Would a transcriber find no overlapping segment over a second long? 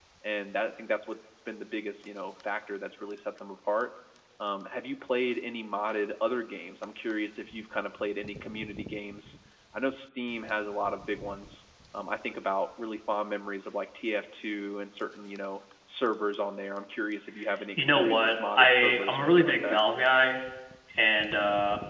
No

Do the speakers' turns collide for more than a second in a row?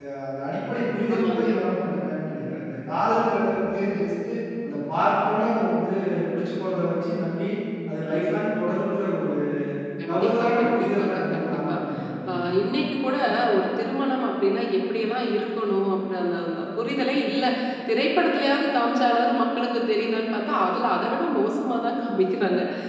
Yes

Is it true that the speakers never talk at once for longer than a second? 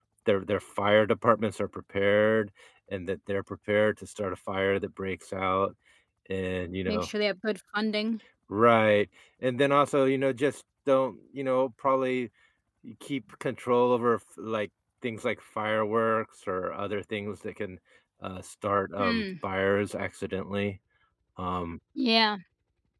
Yes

